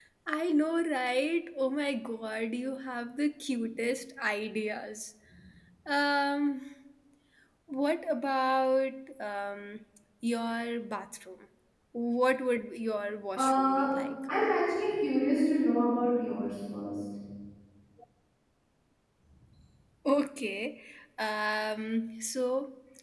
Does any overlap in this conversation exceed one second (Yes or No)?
No